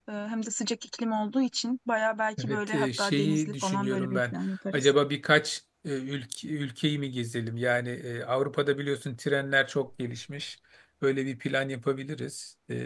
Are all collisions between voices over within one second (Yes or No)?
No